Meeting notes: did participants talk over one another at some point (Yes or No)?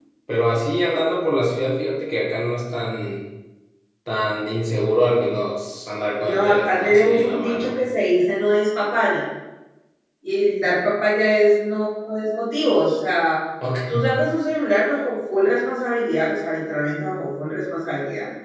Yes